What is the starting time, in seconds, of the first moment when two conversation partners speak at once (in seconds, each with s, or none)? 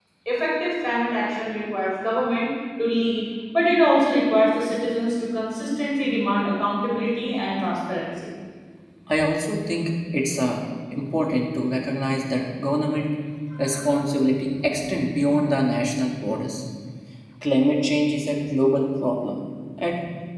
none